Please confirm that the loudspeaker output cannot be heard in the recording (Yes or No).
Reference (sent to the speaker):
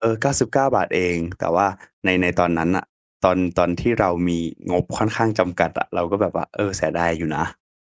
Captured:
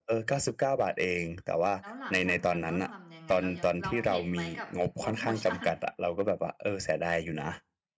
No